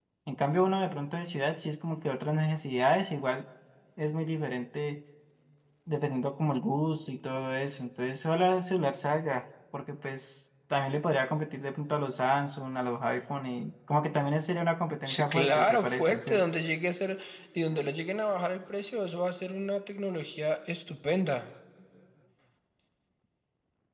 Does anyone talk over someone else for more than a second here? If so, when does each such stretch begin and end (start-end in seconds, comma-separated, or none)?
15.1-16.4